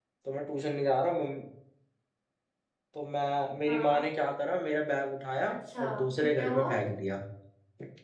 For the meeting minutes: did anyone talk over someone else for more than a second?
Yes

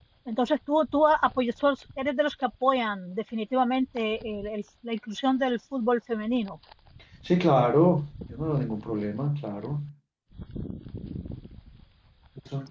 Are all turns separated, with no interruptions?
Yes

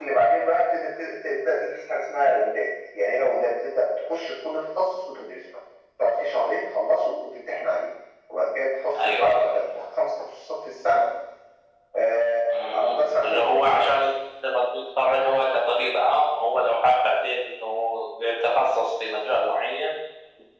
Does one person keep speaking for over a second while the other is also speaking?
Yes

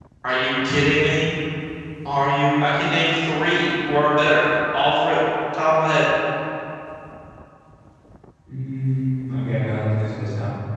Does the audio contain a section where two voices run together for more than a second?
No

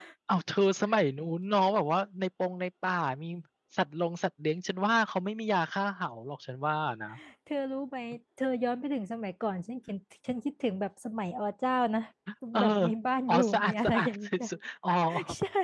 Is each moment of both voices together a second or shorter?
No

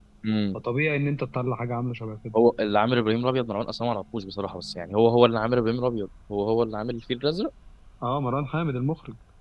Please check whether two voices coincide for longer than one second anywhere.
No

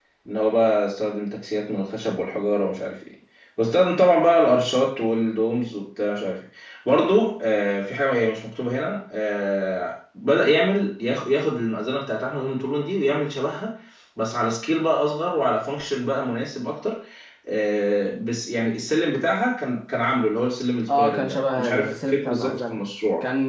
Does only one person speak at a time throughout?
No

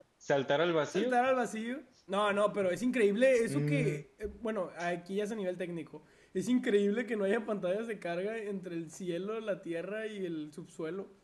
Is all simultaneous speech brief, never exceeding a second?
Yes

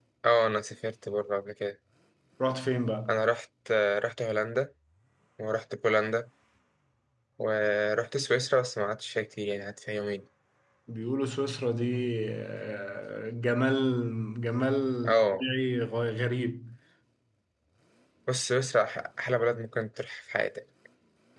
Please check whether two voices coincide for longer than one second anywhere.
No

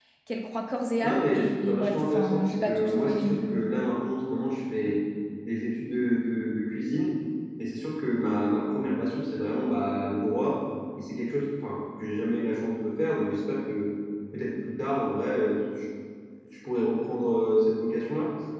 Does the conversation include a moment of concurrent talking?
Yes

